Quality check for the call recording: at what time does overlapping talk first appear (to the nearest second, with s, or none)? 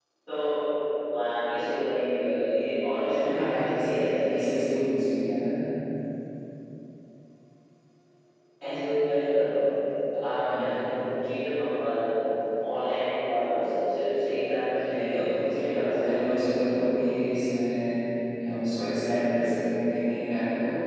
3 s